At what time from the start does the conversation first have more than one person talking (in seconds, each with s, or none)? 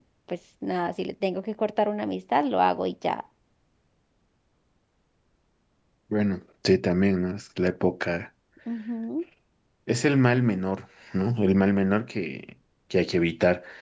none